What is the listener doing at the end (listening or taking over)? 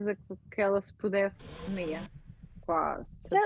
taking over